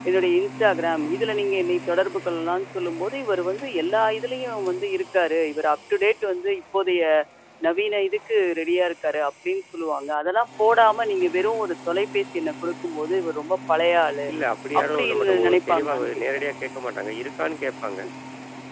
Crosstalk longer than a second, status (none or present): present